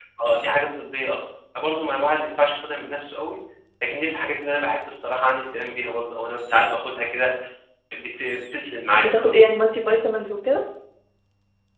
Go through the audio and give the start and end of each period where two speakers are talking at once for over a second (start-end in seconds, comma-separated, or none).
none